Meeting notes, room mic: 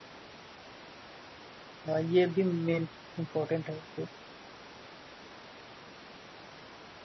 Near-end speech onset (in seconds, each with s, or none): 1.9 s